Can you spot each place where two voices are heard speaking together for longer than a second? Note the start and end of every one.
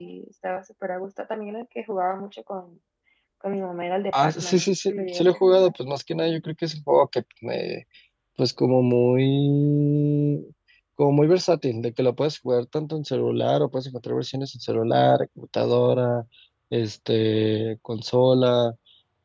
4.1-5.7

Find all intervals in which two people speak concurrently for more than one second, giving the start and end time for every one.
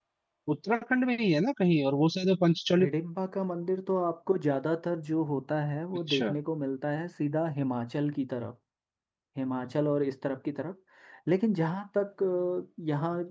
none

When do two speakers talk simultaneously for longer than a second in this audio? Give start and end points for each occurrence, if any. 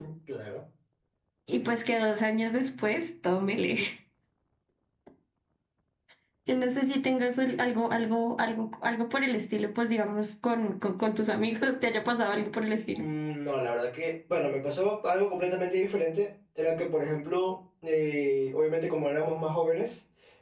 none

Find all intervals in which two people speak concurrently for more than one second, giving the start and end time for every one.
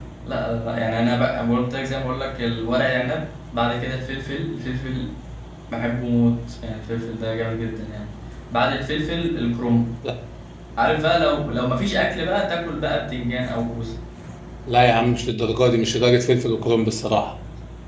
none

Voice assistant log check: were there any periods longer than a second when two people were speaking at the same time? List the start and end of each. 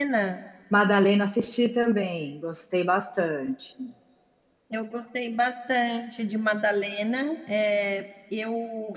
none

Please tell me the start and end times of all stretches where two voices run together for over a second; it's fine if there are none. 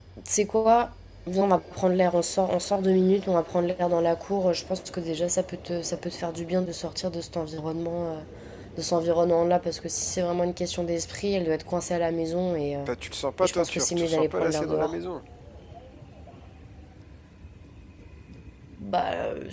13.4-15.0

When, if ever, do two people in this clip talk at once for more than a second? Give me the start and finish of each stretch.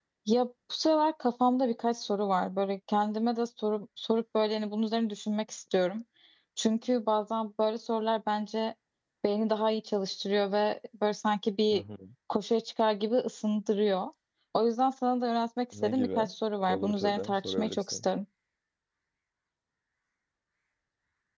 16.7-18.0

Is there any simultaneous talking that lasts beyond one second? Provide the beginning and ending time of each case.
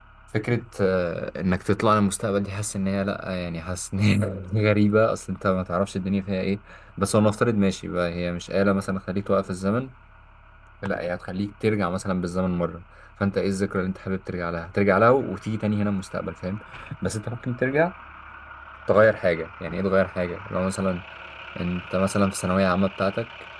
none

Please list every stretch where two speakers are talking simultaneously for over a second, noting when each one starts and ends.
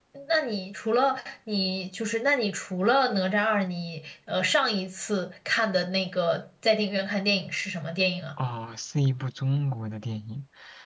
none

